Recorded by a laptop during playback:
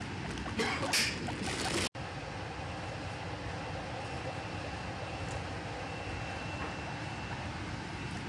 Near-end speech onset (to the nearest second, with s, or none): none